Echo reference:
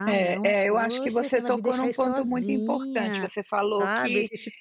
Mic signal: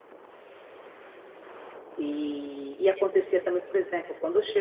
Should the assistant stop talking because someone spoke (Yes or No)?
Yes